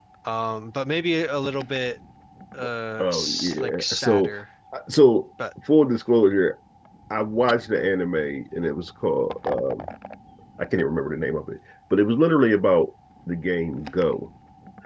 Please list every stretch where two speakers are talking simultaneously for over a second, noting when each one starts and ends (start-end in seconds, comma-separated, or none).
3.0-4.3